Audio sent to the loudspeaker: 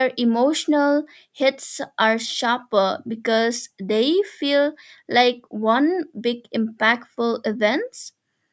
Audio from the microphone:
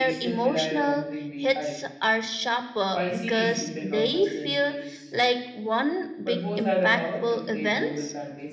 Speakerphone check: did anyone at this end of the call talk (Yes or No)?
Yes